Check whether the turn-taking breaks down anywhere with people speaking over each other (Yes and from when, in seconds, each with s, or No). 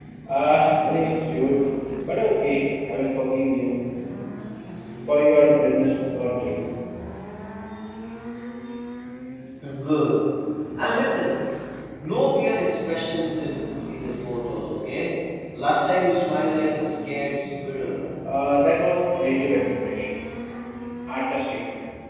No